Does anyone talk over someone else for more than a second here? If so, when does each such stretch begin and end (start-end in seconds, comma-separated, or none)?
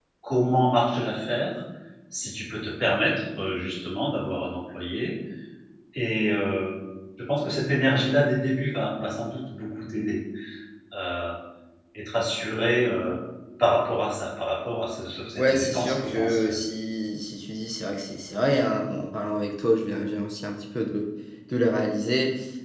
15.4-16.6